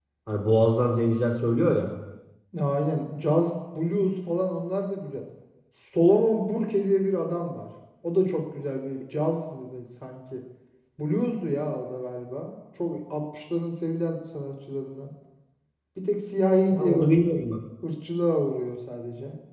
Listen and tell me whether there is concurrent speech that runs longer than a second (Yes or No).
No